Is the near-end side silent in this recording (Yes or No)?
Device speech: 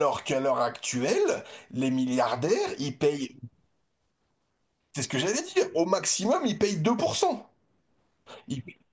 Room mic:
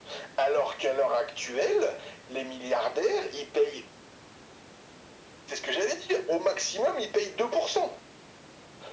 Yes